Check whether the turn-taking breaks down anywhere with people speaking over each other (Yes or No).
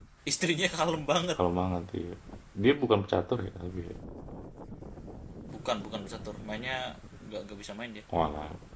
No